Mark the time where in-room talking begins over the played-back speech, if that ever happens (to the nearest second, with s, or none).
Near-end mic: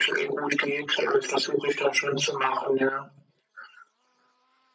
none